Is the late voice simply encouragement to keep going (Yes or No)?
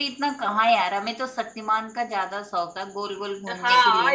No